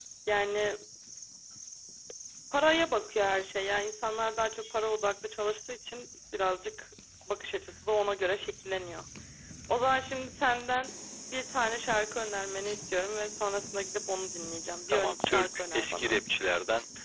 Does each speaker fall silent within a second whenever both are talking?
No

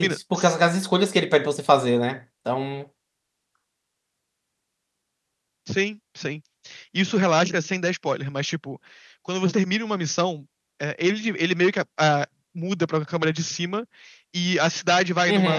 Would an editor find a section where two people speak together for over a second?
No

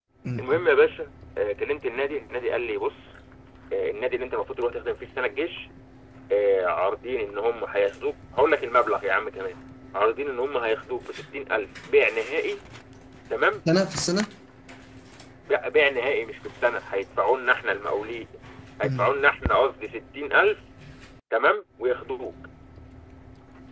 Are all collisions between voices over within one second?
Yes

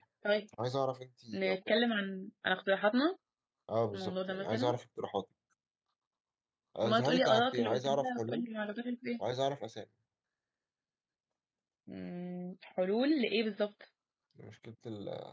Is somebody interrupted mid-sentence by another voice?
Yes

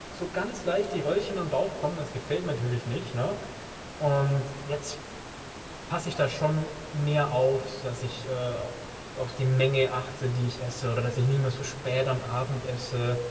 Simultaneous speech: No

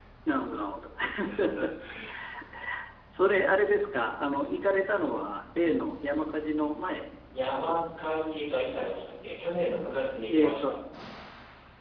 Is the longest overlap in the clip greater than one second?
No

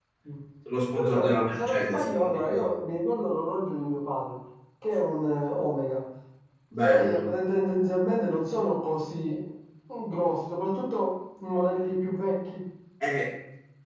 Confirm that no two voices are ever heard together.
No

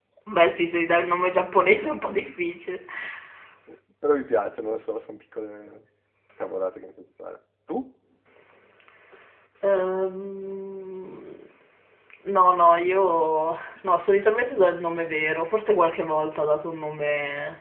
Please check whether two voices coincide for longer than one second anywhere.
No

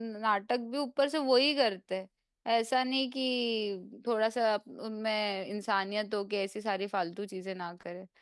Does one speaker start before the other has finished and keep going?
No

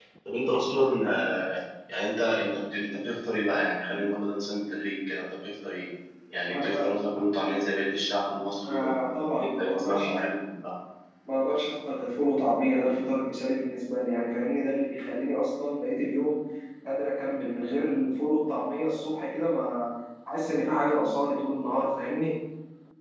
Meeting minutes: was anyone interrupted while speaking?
Yes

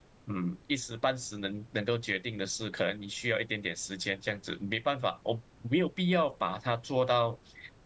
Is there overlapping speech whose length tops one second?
No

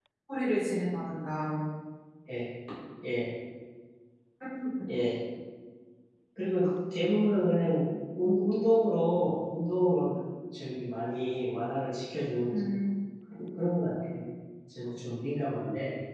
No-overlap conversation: Yes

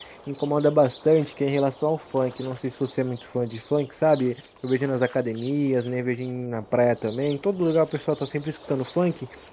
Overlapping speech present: No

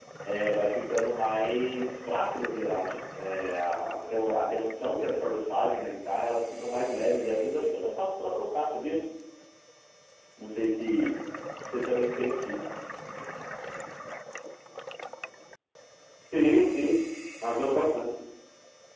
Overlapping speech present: No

